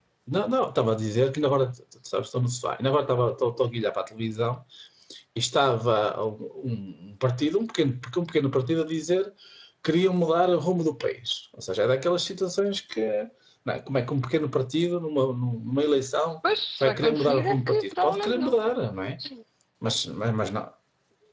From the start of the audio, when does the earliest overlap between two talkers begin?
16.8 s

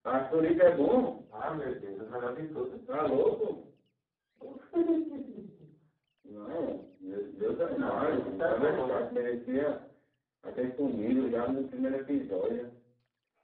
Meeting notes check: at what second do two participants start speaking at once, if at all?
7.8 s

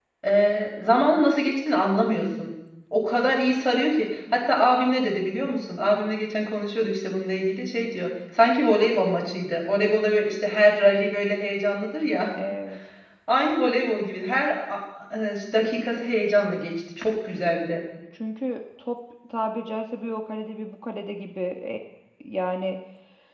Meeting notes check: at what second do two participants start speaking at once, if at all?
none

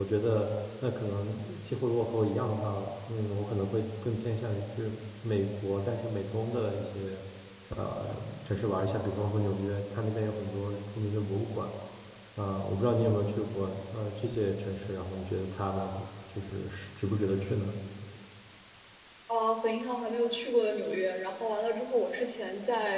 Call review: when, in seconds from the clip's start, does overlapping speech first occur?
none

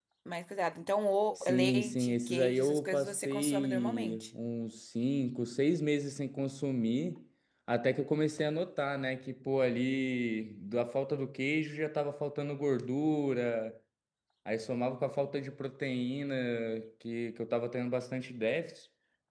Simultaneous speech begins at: 1.4 s

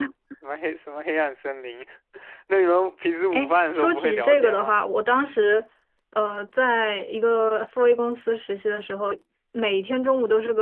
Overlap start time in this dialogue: 3.3 s

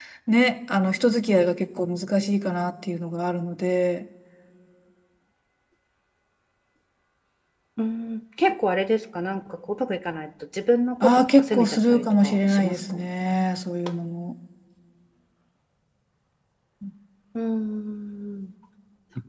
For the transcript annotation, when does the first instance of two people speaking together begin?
11.0 s

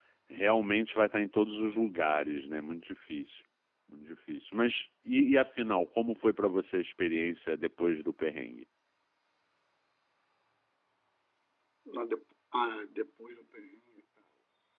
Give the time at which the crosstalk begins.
none

